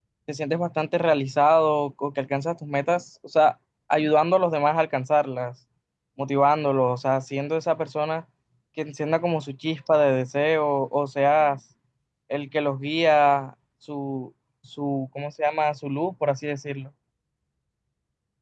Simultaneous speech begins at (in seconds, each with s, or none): none